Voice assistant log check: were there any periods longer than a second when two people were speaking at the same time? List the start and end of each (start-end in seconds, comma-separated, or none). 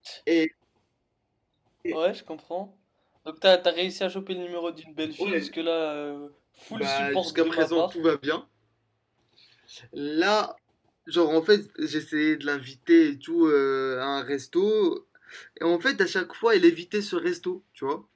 6.7-7.9